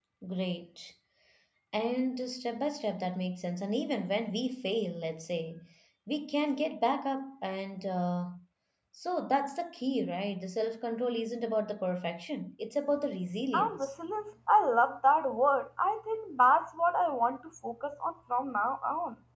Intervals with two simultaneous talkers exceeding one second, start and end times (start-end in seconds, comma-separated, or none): none